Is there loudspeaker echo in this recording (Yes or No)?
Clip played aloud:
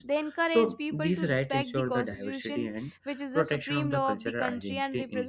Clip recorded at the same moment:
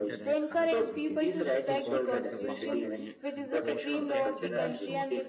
Yes